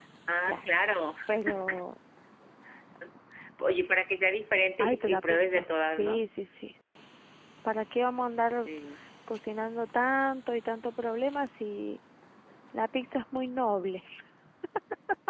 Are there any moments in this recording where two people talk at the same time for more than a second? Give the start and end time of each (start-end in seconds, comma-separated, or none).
4.8-6.2